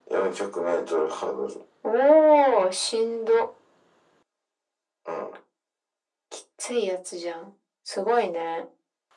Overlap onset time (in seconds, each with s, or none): none